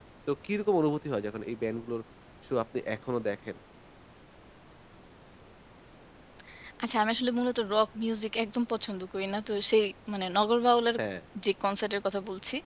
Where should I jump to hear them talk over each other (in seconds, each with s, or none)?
none